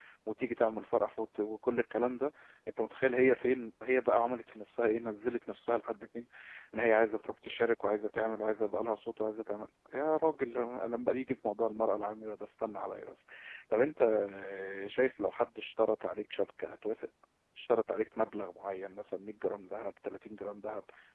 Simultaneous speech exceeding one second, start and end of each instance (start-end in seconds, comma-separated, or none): none